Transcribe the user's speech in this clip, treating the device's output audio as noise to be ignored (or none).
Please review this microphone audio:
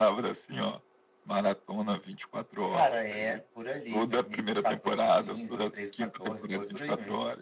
Cara, é, por ali, 2014, 15 ou 13, 14, foi por aí mesmo.